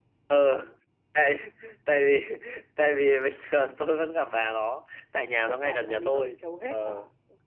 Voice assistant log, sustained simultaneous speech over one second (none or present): present